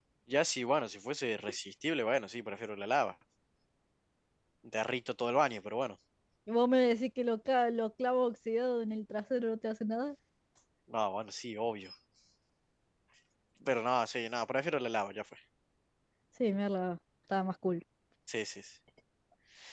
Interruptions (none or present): none